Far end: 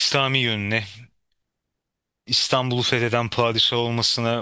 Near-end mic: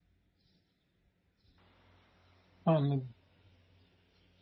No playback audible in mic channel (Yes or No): Yes